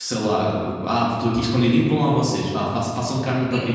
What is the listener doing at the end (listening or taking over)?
taking over